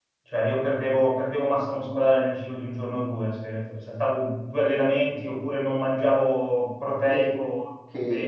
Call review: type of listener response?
taking over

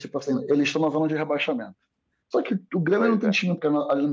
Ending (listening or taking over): listening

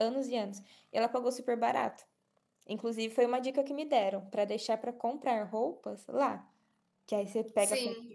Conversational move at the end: listening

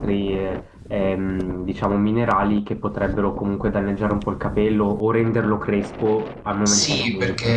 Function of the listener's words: taking over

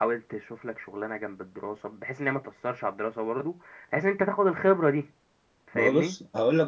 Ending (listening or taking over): taking over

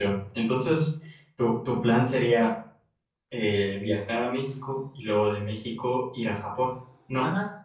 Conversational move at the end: taking over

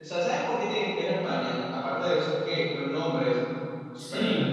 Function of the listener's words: taking over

